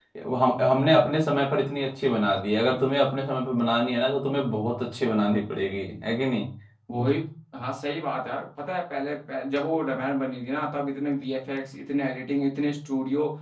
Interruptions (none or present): none